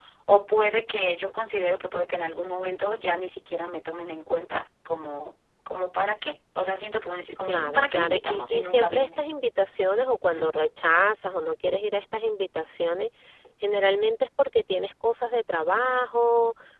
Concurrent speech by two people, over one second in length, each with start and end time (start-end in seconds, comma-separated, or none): 7.4-9.2